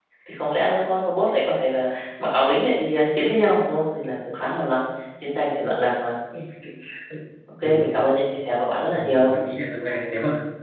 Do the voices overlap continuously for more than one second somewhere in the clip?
No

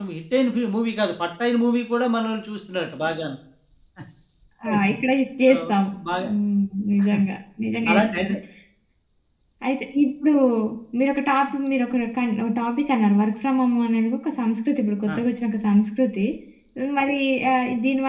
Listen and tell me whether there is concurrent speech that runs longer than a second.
No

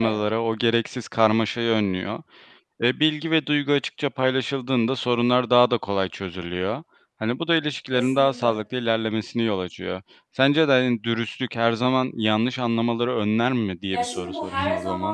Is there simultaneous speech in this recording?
Yes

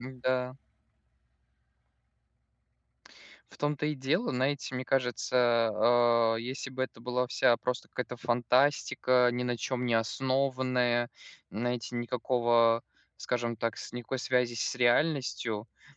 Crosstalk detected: No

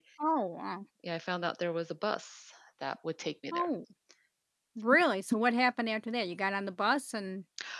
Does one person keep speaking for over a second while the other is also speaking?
No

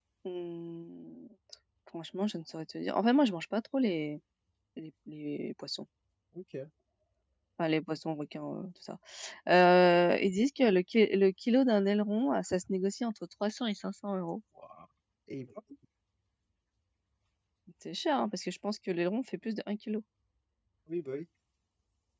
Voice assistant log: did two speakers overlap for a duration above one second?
No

